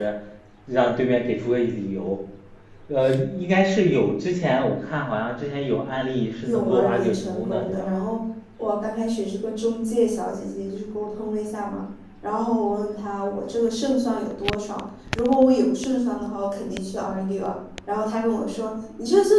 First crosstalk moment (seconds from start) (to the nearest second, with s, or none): 6 s